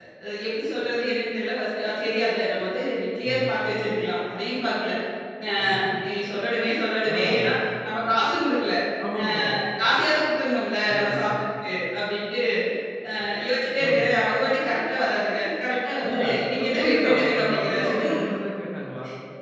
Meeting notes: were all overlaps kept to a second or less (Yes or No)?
No